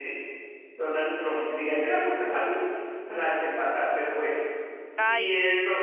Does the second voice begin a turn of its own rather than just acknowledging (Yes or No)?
No